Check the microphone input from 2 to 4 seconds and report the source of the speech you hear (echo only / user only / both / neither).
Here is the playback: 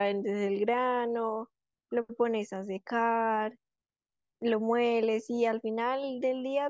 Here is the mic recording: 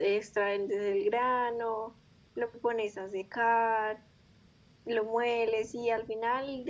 echo only